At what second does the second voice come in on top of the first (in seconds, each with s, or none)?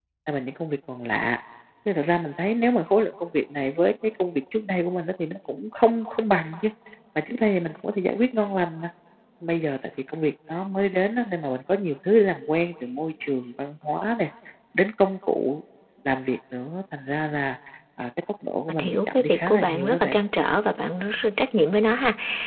18.7 s